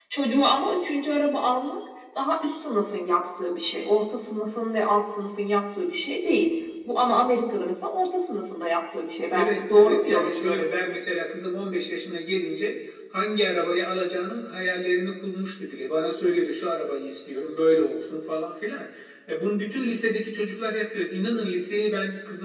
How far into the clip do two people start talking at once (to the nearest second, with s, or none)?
9 s